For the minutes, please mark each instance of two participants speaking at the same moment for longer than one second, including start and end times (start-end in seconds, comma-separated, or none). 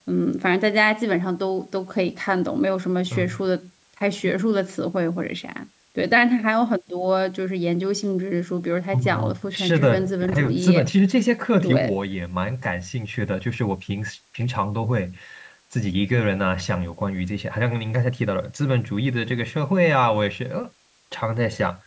8.9-10.8